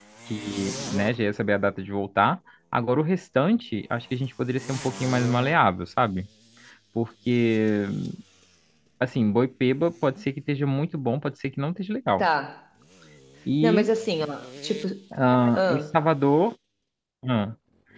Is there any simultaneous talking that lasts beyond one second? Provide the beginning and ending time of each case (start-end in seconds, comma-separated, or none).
none